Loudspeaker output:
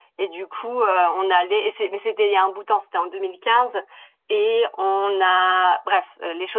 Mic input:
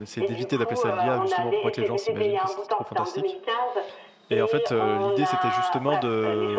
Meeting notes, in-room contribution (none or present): present